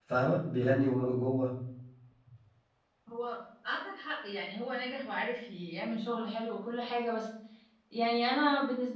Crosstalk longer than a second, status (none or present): none